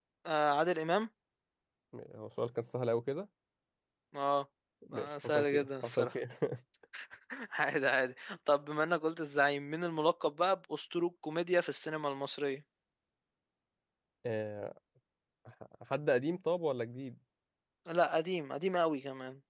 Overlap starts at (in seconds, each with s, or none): 4.9 s